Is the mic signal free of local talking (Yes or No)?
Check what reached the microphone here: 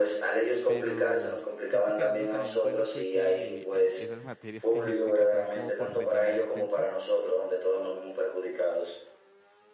No